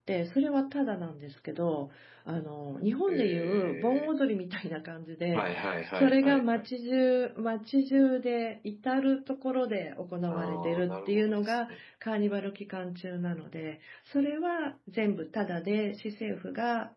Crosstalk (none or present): present